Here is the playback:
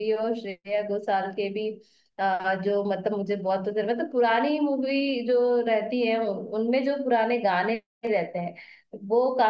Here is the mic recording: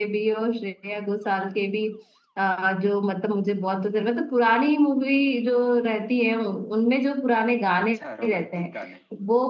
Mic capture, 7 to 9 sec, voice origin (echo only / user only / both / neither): both